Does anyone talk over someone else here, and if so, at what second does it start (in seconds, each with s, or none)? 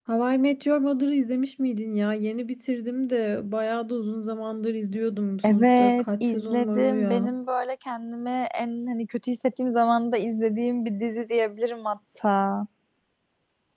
5.4 s